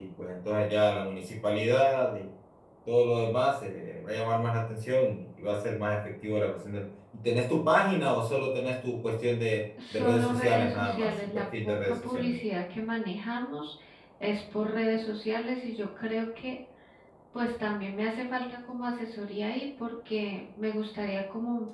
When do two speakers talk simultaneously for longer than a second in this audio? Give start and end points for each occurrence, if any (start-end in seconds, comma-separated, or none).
9.9-12.3